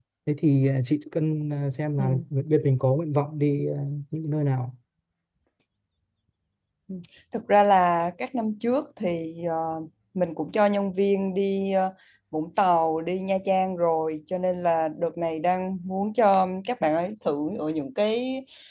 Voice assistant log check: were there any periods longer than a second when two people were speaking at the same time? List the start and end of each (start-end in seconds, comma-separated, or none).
none